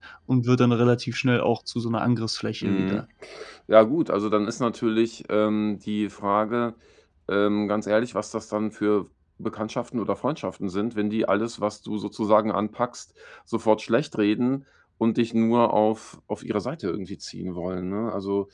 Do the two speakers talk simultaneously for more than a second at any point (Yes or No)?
No